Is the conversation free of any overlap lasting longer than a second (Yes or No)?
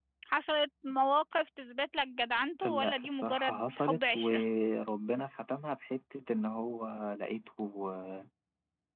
No